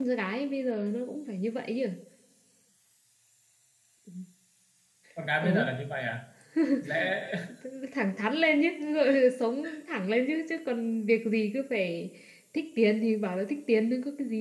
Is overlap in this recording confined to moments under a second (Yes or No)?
Yes